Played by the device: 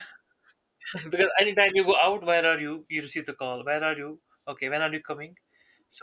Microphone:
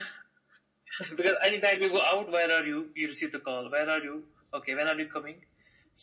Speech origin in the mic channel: echo only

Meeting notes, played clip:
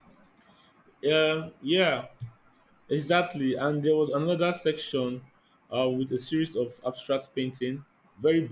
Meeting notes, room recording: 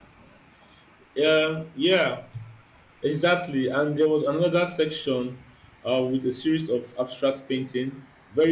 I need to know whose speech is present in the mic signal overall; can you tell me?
echo only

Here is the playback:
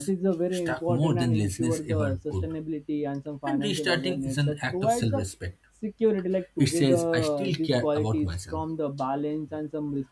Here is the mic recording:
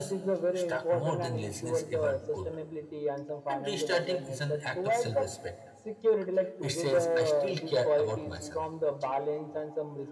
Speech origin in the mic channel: echo only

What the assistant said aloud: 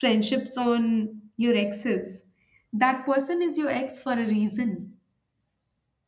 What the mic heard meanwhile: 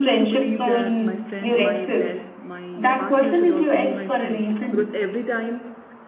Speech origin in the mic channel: both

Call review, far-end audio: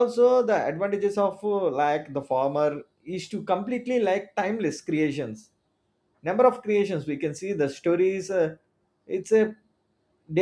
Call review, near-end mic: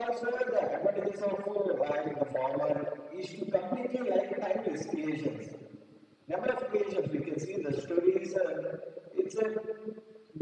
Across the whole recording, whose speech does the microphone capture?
echo only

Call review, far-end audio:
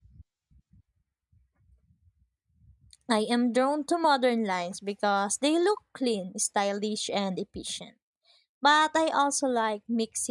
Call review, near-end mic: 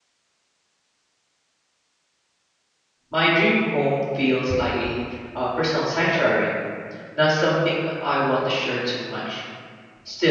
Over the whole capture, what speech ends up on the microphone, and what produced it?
user only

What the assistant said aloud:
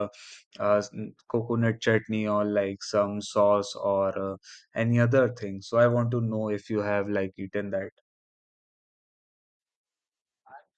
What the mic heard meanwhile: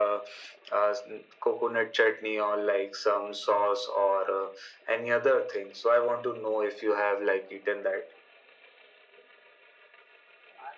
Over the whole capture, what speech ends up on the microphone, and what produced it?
echo only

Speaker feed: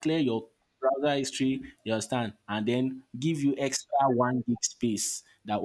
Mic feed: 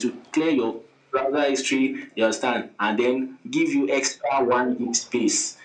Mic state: echo only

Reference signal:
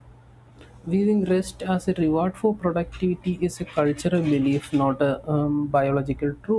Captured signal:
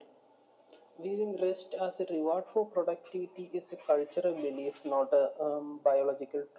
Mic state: echo only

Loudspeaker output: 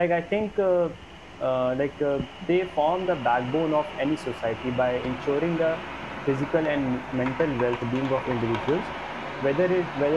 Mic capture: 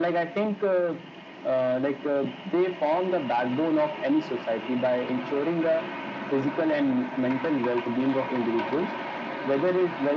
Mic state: echo only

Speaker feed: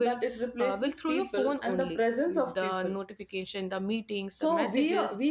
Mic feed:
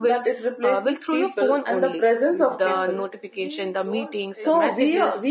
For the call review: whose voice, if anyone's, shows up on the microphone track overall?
both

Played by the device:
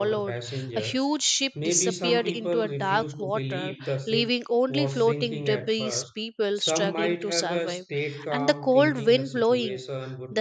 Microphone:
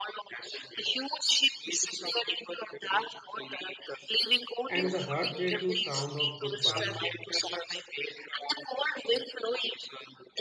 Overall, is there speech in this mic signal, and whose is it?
both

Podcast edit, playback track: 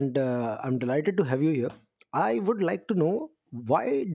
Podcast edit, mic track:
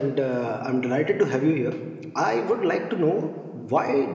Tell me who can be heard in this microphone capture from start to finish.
echo only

